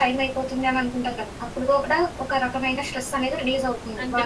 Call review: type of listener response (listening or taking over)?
taking over